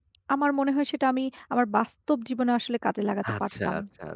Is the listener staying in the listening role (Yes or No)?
No